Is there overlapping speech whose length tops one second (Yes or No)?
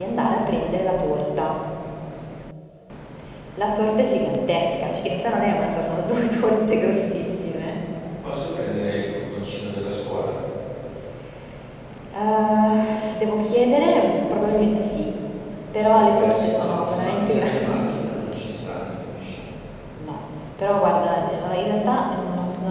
Yes